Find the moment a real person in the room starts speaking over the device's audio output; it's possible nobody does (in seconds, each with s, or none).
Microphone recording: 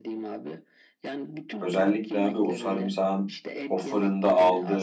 1.6 s